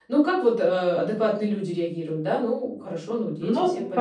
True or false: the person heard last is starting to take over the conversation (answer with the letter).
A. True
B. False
A